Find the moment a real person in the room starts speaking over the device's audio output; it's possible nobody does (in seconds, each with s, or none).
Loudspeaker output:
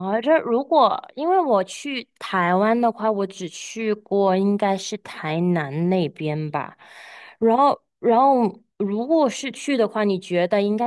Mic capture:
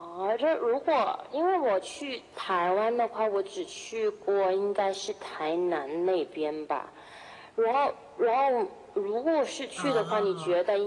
9.8 s